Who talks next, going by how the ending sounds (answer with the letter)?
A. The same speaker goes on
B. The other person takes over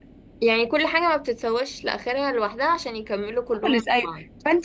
B